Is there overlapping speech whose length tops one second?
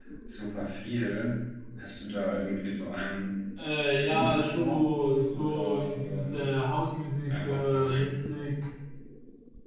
Yes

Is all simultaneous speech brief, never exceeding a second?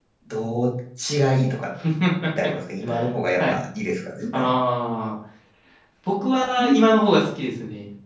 Yes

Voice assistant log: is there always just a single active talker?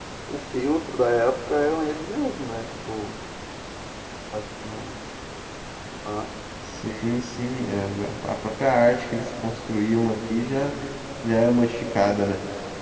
Yes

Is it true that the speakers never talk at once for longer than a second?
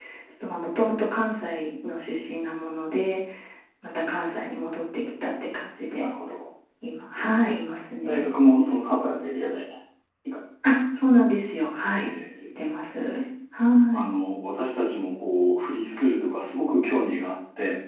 Yes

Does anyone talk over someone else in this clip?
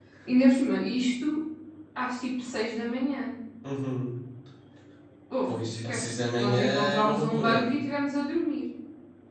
Yes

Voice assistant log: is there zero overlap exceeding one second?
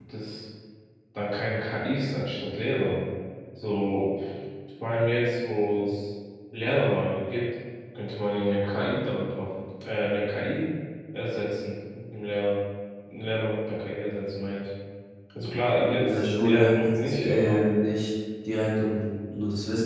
No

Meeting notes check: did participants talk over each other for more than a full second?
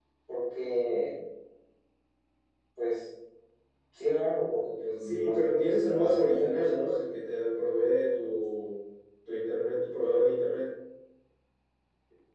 Yes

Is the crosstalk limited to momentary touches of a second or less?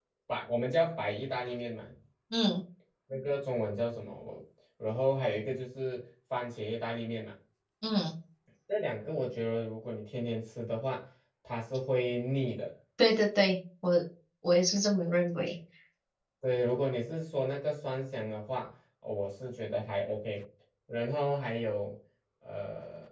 Yes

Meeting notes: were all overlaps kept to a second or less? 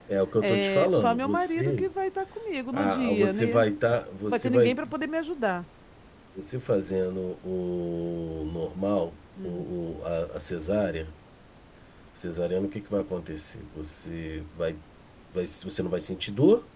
No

